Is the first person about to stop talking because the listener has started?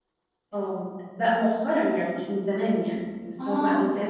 No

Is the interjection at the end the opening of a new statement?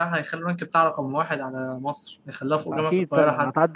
Yes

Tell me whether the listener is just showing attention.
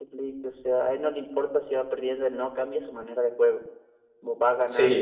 No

